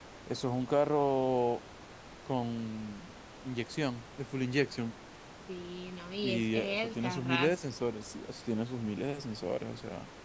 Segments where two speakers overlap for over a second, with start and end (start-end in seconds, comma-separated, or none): 6.2-7.6